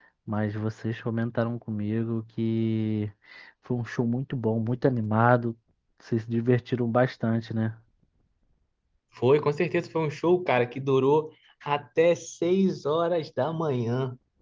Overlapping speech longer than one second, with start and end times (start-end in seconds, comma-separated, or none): none